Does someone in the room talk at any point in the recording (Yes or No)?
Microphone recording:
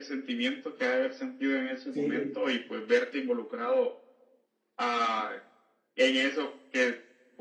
Yes